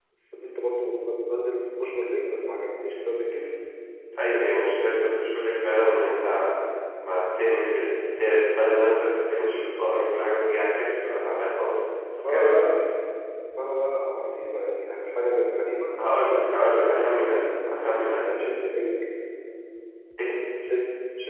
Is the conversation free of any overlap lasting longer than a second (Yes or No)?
No